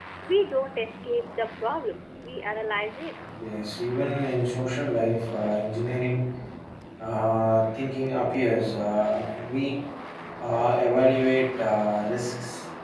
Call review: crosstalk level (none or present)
none